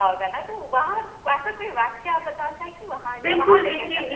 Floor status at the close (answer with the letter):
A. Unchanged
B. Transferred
B